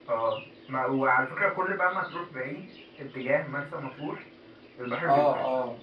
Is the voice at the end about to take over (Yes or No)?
Yes